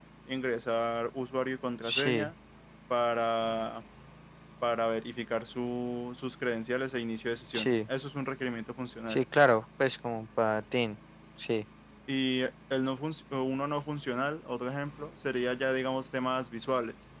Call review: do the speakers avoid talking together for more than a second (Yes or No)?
Yes